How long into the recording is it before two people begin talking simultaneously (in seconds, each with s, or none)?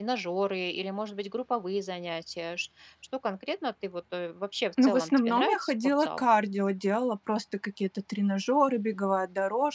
4.8 s